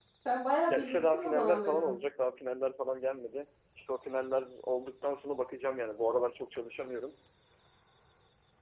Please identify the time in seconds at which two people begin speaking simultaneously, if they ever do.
0.7 s

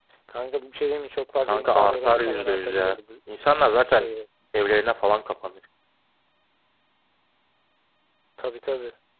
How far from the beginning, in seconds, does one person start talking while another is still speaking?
1.4 s

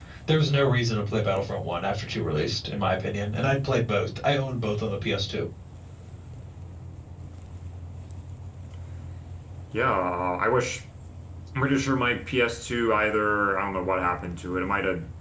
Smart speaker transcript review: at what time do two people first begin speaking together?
none

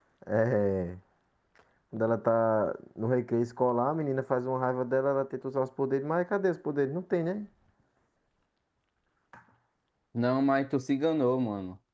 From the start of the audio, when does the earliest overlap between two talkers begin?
none

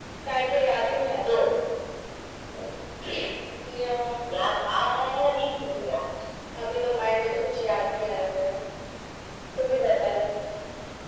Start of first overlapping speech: none

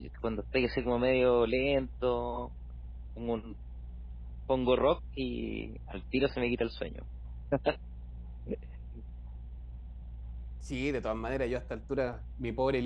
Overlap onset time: none

